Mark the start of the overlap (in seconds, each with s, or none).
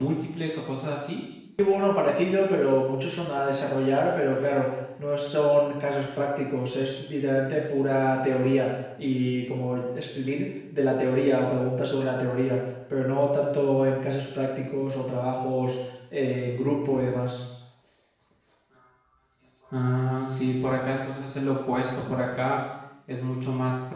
none